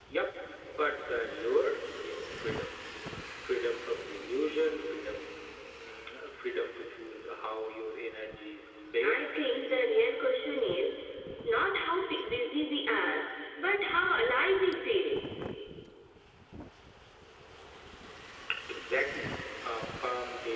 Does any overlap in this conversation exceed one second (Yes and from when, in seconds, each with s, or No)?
No